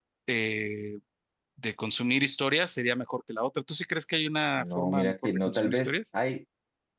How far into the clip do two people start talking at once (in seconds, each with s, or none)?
4.5 s